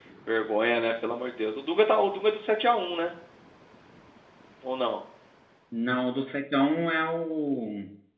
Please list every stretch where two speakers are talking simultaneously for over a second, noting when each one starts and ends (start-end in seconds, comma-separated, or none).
none